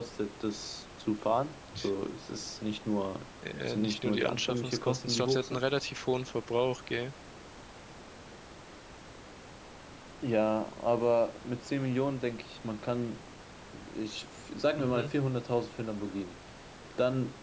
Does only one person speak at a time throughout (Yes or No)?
No